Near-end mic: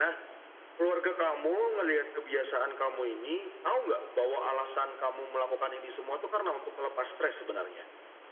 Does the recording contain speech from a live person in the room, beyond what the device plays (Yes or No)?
No